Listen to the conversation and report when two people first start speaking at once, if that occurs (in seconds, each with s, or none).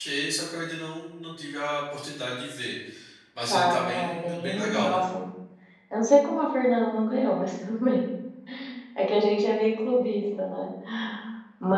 3.5 s